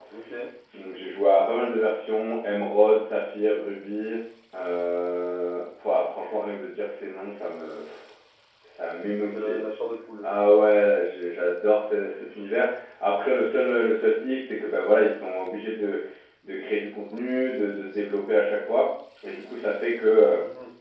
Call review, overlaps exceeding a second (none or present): none